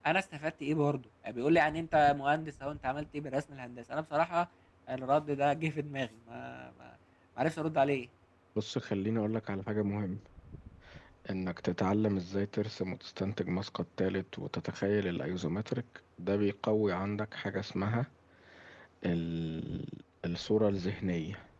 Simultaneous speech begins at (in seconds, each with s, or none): none